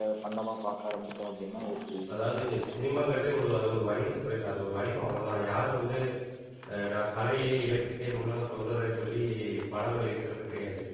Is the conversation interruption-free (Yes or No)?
Yes